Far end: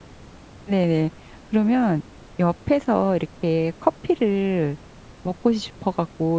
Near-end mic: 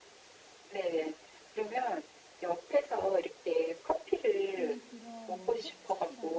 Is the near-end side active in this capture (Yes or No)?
Yes